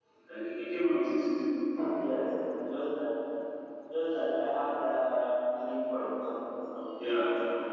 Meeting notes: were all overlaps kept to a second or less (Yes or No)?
Yes